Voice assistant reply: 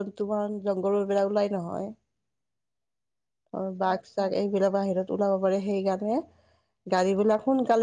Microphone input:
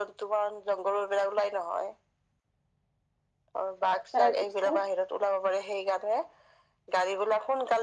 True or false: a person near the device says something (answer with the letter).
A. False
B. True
B